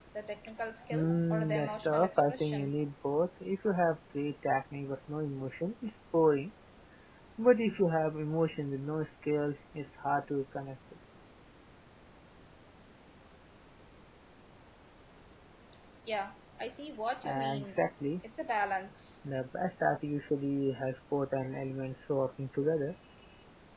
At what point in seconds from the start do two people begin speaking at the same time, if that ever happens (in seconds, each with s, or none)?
0.9 s